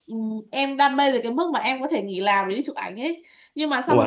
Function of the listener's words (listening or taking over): listening